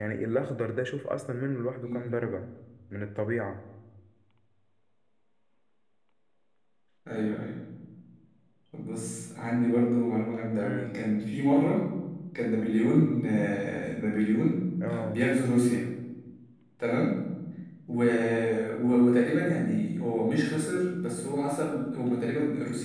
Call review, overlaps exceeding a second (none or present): none